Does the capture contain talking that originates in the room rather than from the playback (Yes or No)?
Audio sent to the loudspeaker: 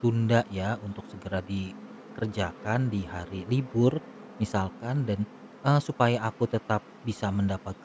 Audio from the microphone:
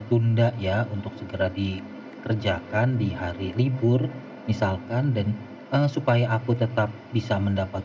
No